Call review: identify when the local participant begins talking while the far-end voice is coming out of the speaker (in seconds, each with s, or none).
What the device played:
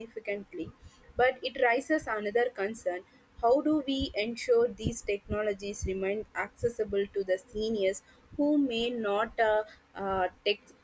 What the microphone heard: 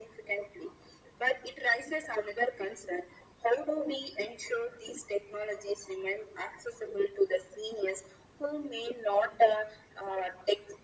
none